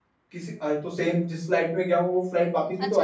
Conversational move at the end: taking over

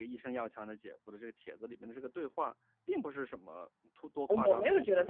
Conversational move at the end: taking over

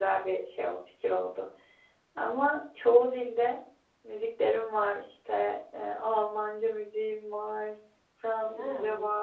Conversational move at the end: listening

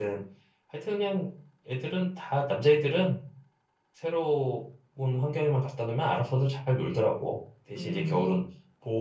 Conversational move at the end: listening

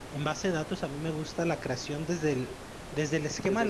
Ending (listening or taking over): listening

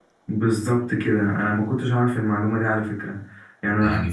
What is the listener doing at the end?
taking over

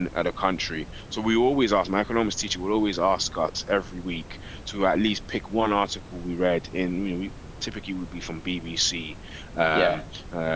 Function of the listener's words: listening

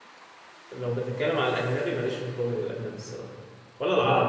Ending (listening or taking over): listening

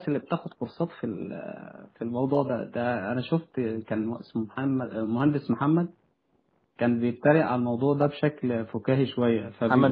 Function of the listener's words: listening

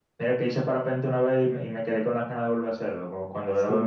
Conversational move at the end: taking over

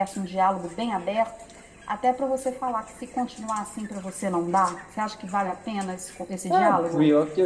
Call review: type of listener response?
taking over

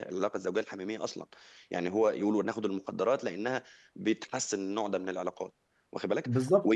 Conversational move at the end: listening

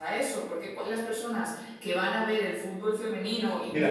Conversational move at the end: taking over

